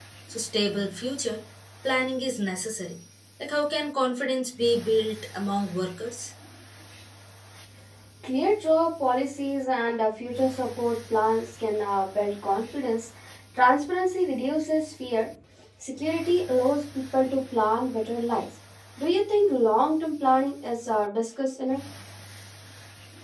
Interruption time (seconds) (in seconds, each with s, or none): none